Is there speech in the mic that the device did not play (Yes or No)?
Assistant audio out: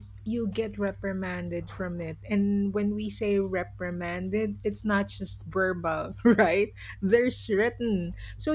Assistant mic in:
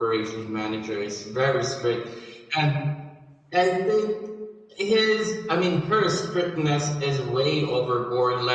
Yes